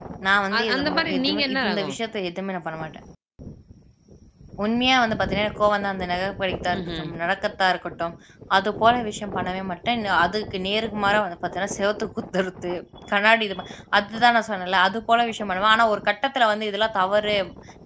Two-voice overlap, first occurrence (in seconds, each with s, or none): 0.6 s